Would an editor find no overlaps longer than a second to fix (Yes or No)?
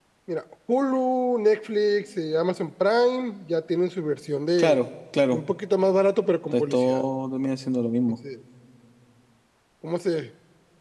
Yes